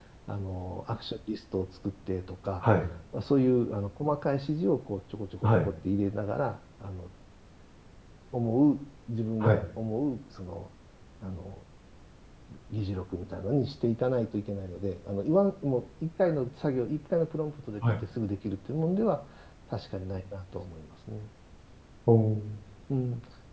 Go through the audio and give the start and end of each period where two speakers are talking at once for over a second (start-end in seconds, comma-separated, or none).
none